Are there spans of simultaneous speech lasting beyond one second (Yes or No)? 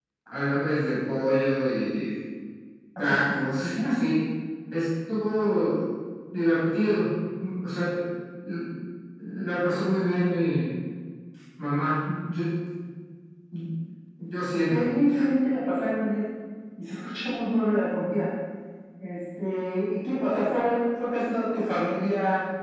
No